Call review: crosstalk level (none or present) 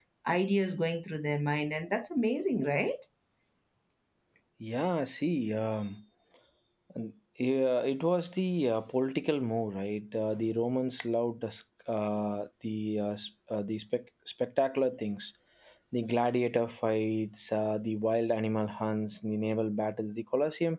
none